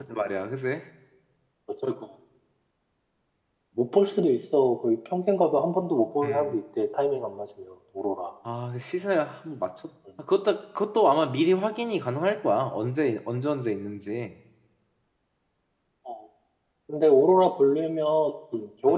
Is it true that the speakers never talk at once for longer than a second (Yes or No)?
Yes